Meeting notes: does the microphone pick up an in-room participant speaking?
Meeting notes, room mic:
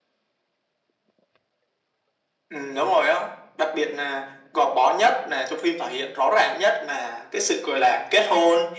No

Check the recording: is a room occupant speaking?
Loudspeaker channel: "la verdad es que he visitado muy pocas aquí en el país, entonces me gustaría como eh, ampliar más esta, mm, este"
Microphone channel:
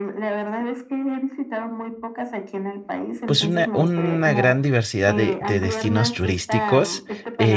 Yes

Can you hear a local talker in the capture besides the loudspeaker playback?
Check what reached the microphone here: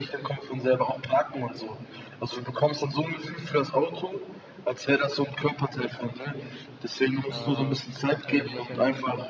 Yes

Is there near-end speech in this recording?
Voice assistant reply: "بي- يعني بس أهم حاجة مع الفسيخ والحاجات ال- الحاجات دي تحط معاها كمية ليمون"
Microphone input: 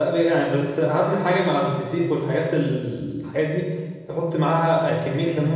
No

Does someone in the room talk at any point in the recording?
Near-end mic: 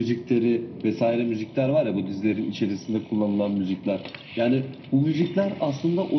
No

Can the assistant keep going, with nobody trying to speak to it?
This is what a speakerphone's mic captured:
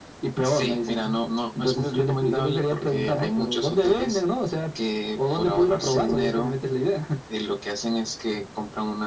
Yes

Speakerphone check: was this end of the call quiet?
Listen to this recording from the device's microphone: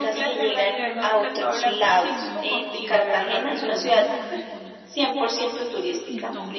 No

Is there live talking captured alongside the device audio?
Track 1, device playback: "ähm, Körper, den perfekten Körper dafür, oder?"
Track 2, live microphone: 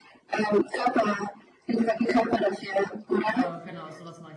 Yes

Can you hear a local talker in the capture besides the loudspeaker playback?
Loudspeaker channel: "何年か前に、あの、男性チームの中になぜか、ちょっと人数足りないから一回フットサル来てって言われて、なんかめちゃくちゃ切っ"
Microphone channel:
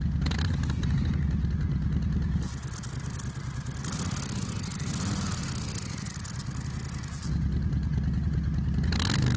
No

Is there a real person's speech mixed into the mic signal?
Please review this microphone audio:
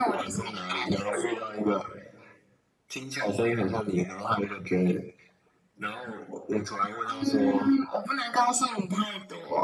No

